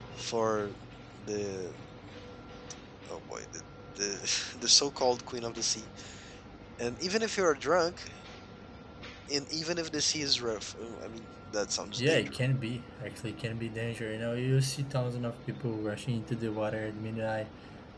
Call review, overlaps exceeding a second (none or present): none